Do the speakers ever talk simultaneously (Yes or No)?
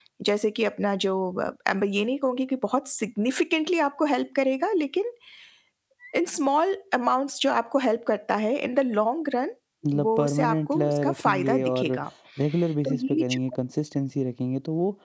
Yes